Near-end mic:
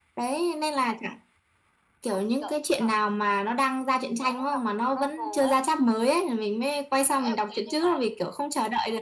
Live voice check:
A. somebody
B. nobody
B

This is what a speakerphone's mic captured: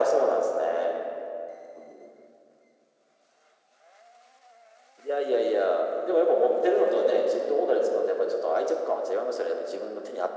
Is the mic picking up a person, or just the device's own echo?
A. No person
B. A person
A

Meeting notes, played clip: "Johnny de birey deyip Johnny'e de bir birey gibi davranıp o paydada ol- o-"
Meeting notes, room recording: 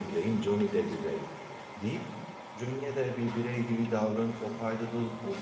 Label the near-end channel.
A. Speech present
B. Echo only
B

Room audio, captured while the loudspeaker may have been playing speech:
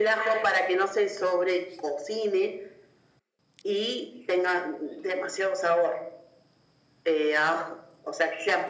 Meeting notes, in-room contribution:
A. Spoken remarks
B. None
B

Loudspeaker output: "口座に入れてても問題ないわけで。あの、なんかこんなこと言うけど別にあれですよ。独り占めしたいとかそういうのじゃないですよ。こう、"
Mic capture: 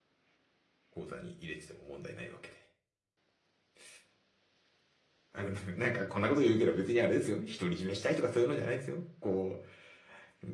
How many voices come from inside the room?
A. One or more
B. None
B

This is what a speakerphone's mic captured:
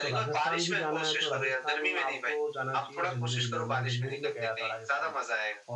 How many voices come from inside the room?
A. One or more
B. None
A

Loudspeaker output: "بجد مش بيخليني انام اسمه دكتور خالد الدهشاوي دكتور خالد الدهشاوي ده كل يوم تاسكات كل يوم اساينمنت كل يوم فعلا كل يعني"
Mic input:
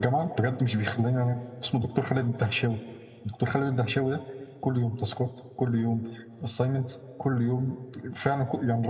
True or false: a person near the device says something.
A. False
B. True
A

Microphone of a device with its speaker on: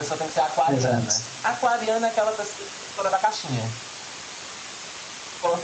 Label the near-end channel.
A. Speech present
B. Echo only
A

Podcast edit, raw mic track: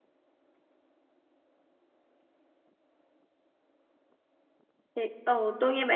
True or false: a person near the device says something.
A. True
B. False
A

